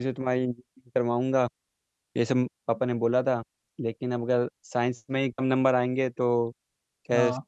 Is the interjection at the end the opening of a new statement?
No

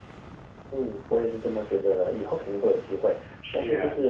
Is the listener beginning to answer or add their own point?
No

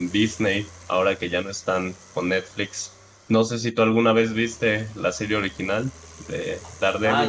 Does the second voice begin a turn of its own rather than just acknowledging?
Yes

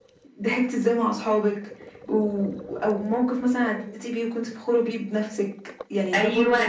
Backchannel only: No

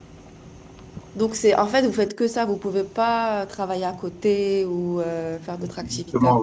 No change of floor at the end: No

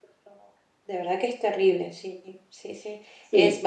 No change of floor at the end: Yes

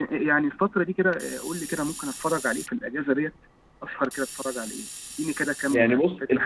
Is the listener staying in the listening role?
No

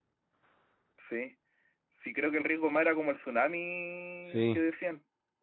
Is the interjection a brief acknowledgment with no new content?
Yes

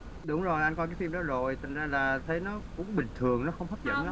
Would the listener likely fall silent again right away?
No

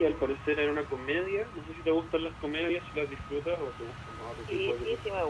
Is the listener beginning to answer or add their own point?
Yes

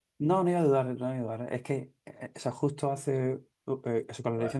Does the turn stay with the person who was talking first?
Yes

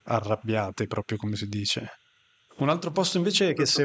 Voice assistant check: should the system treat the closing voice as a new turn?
No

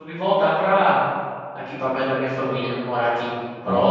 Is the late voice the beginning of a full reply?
No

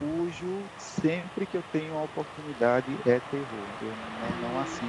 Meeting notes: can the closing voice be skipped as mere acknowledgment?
Yes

